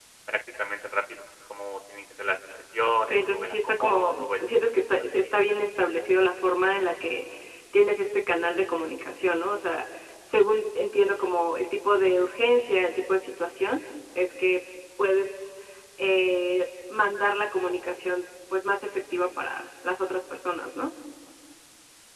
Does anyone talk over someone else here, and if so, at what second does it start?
3.0 s

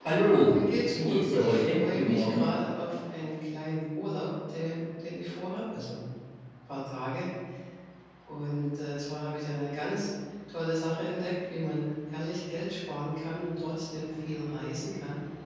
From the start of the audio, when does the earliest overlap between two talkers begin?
1.0 s

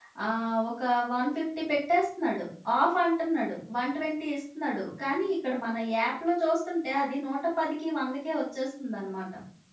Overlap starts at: none

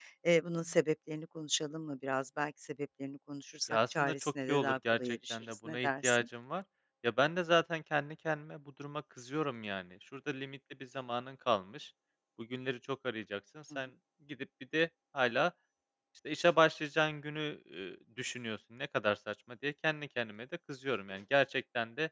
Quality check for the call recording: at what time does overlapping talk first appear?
3.7 s

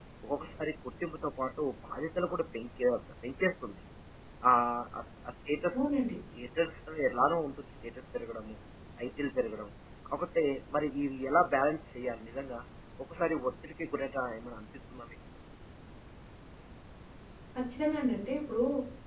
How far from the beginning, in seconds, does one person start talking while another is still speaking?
none

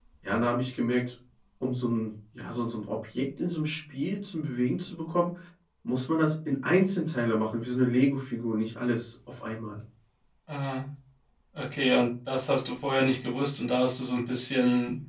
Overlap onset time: none

